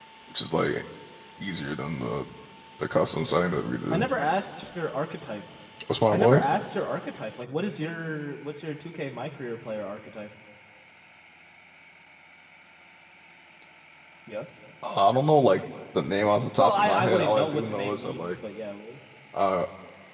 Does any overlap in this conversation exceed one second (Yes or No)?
Yes